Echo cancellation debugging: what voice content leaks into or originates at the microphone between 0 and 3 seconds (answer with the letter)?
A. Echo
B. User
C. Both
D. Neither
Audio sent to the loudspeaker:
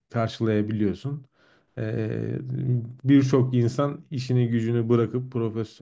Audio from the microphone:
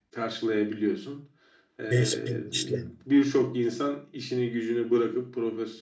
C